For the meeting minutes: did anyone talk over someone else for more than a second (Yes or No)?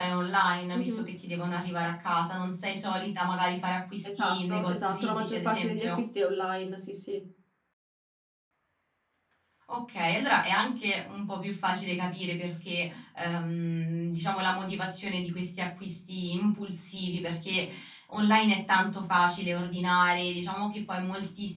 Yes